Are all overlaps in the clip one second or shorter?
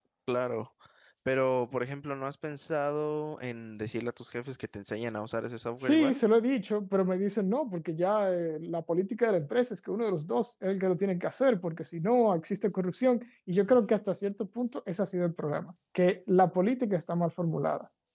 Yes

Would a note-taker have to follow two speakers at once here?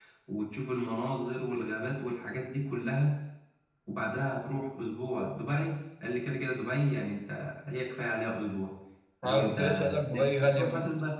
Yes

